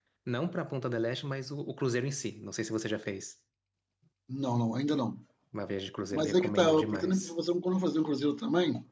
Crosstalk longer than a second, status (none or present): present